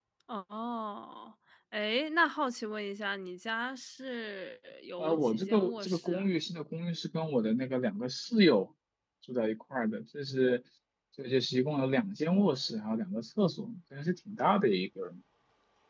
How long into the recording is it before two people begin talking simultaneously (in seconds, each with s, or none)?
5.0 s